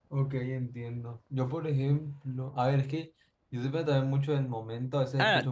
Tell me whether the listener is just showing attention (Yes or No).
No